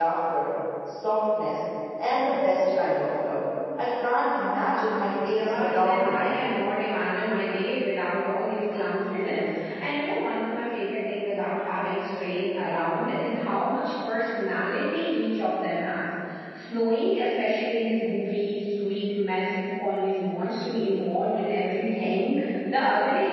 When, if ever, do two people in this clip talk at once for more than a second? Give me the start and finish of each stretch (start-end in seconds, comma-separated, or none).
5.3-6.5